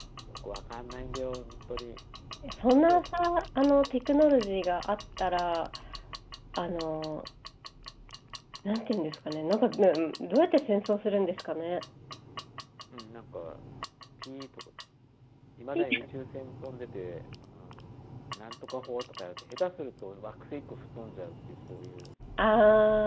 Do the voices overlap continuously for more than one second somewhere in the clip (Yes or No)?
No